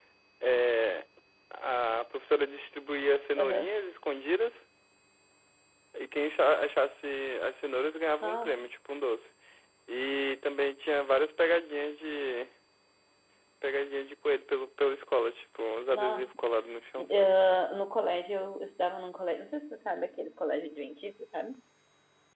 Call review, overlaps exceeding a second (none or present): none